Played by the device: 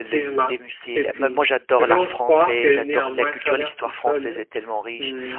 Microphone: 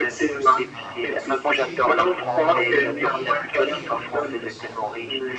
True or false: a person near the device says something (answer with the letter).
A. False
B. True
B